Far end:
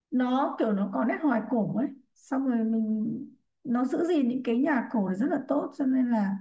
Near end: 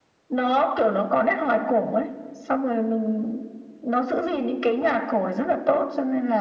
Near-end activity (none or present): none